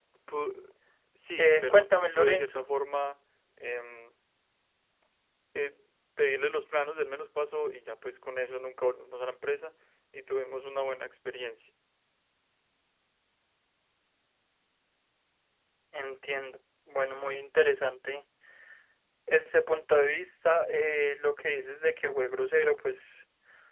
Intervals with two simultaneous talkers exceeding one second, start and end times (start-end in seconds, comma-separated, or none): 1.4-2.7